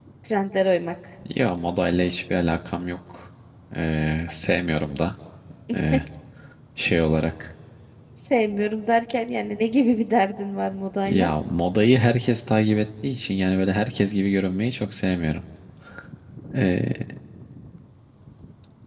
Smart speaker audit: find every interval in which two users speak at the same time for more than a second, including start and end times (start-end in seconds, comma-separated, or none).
none